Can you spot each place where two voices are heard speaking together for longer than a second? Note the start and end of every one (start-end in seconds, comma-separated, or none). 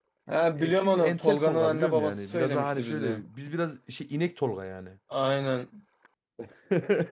0.6-3.2